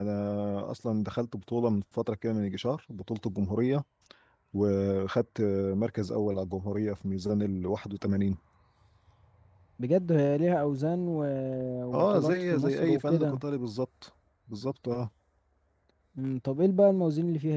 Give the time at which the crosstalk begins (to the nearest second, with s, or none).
12 s